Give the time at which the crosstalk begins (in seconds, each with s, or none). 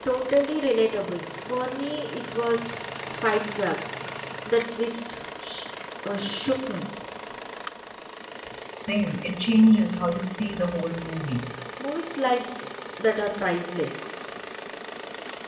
none